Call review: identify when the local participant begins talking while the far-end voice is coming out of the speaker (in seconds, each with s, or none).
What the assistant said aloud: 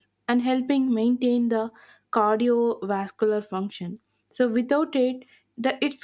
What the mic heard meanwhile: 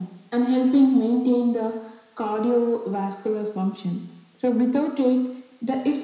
none